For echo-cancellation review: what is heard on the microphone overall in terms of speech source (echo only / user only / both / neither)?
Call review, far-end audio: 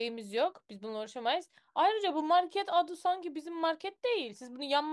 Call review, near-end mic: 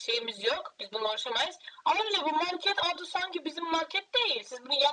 echo only